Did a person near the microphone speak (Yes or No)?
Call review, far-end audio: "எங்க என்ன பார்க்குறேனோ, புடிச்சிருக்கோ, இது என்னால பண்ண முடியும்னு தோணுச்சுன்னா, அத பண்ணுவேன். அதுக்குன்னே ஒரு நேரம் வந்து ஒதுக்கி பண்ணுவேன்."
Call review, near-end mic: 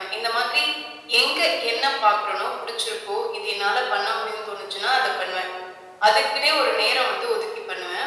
No